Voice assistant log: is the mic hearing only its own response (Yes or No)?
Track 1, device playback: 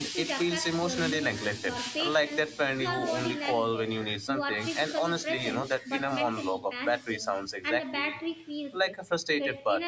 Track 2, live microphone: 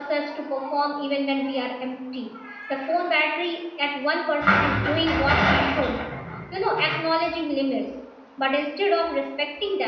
No